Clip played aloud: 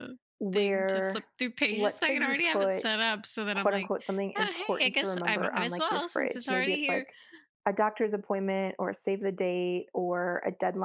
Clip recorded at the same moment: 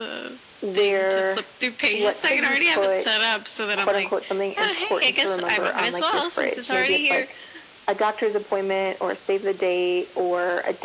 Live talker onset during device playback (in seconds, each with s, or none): none